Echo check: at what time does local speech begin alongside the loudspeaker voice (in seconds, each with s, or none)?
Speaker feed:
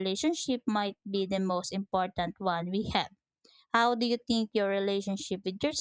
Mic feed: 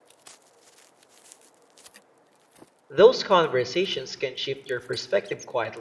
2.9 s